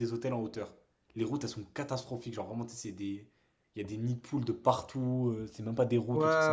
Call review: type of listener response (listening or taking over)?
taking over